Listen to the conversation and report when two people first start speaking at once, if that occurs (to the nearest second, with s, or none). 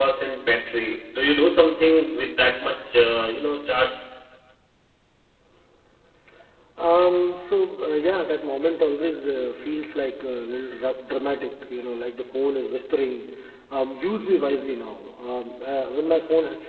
none